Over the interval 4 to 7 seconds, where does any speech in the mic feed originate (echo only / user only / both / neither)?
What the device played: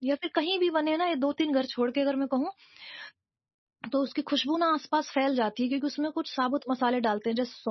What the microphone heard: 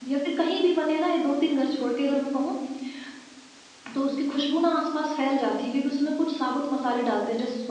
echo only